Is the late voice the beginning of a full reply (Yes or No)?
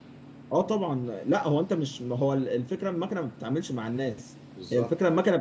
No